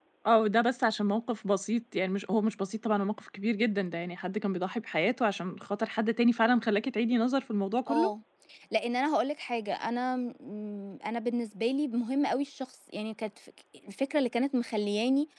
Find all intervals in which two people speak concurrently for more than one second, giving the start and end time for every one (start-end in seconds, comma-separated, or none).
none